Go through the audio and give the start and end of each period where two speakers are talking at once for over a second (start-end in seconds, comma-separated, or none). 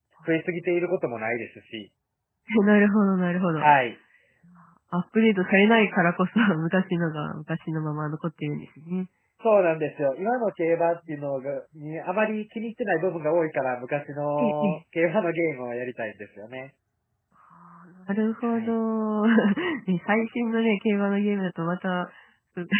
none